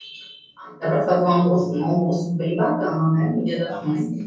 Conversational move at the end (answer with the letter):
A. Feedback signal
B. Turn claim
B